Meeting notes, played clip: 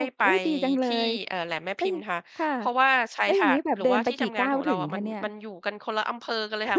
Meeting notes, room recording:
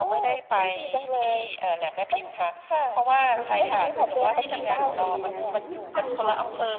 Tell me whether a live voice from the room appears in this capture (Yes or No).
Yes